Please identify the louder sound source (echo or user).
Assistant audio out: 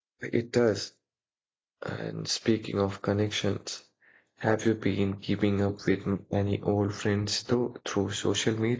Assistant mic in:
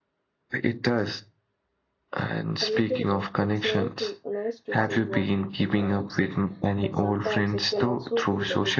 echo